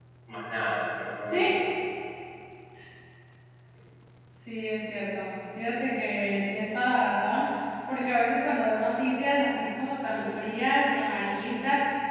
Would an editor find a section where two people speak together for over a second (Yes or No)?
No